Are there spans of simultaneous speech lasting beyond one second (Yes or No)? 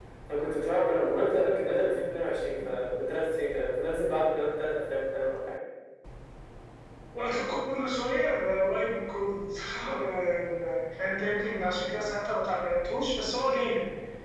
No